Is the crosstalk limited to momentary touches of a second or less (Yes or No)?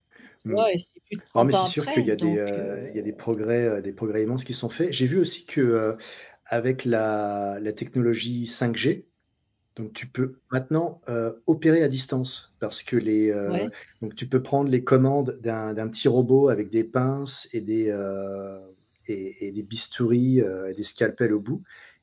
No